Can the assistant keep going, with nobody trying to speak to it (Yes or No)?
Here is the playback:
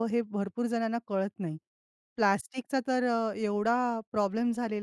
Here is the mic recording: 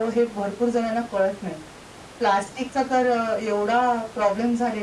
Yes